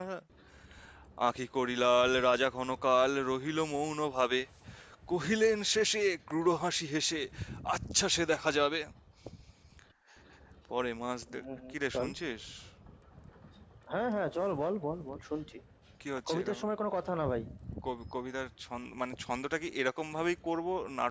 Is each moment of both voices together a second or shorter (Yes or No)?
Yes